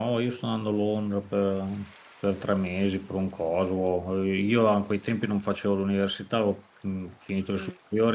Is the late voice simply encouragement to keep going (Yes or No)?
Yes